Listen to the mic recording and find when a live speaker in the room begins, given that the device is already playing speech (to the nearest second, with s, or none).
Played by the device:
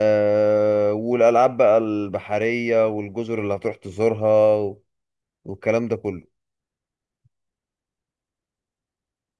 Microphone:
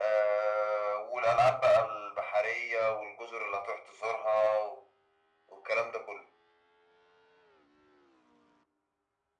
none